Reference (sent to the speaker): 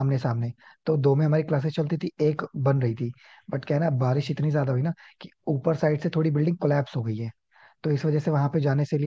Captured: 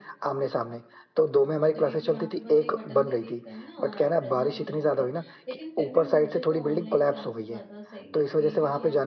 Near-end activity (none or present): present